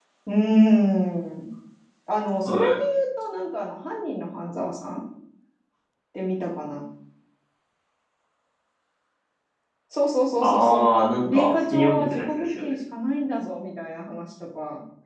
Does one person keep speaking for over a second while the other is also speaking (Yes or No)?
Yes